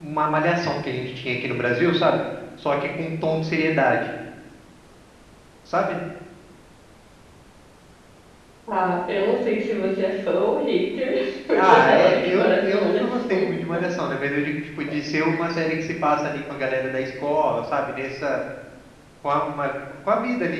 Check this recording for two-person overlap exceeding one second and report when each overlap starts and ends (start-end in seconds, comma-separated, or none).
11.5-13.5